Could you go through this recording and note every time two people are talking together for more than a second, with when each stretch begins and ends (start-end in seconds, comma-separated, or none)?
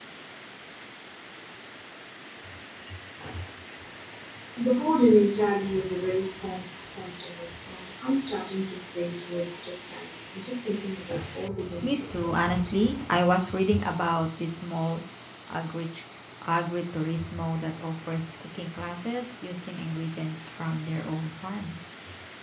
11.8-13.0